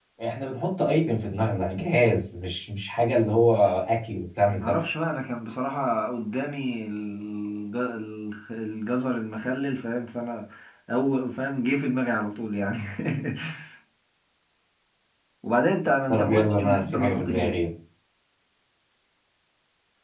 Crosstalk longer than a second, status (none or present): present